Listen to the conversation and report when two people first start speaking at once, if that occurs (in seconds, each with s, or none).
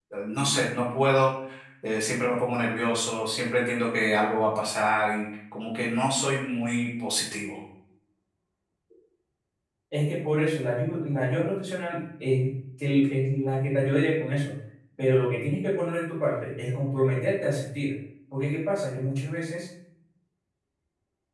none